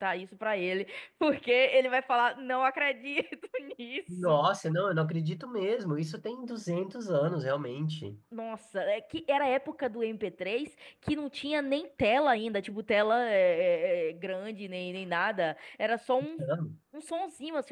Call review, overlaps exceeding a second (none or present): none